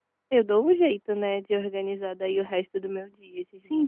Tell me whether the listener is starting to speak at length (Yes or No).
Yes